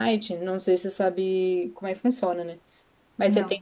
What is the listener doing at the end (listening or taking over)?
listening